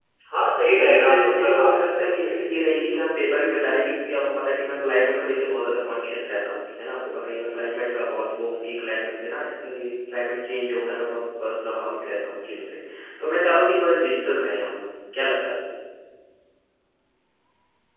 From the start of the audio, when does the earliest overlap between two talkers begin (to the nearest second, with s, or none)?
1 s